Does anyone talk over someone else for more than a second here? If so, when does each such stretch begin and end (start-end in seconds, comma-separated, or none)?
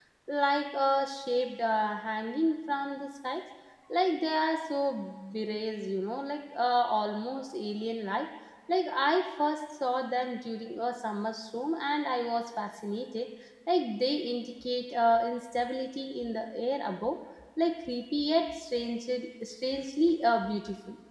none